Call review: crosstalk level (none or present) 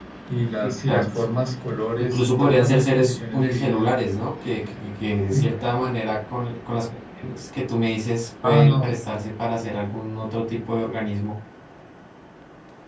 present